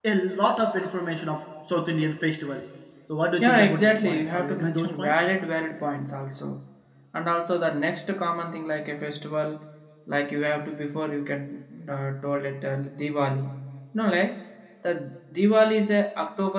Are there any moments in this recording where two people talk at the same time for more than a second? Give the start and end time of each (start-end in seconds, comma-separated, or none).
3.4-5.2